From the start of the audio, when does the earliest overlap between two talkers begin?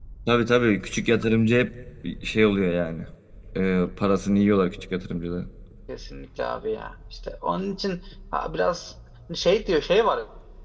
none

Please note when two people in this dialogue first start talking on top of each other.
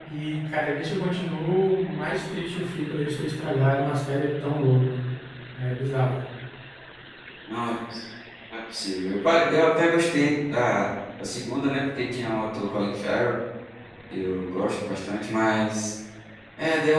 none

